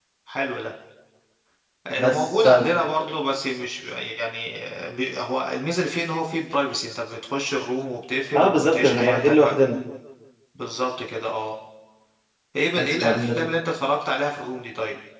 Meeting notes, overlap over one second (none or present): present